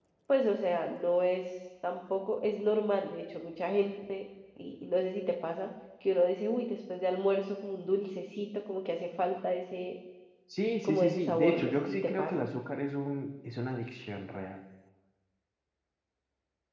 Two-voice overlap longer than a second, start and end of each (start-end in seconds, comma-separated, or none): 10.8-12.4